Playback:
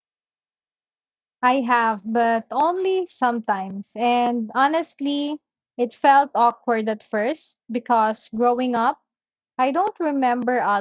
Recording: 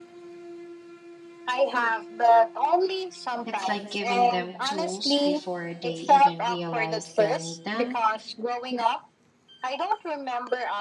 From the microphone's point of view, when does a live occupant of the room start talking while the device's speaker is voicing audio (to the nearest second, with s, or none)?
3 s